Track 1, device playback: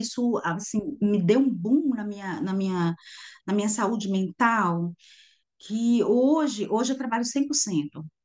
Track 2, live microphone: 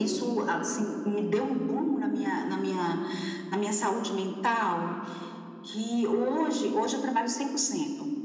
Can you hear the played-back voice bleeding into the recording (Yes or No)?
Yes